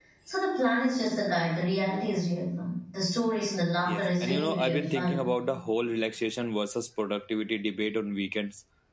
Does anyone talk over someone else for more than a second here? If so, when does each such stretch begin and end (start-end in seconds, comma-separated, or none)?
3.9-5.2